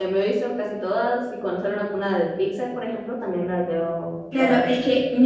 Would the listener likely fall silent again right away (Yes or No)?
No